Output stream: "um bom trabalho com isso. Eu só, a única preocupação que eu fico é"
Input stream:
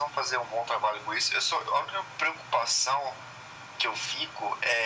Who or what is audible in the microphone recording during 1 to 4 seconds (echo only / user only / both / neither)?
echo only